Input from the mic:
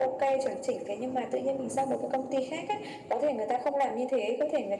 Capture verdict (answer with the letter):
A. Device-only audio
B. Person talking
A